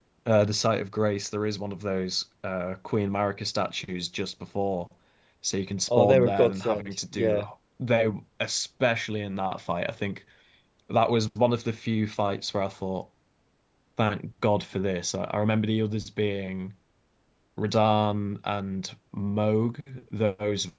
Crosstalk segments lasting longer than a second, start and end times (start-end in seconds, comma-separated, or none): 5.9-7.4